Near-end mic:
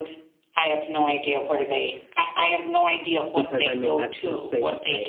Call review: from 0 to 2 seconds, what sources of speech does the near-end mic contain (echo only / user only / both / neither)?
echo only